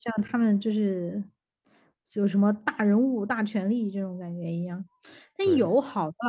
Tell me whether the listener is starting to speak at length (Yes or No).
No